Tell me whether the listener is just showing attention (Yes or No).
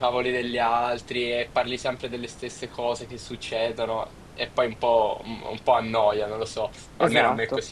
No